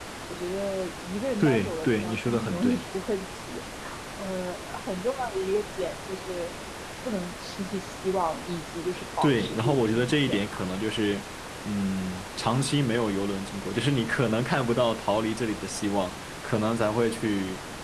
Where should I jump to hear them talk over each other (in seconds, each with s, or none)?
1.4 s